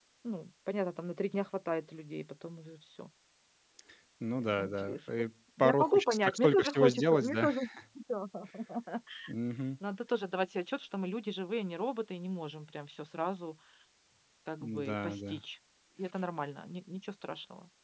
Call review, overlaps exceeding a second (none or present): present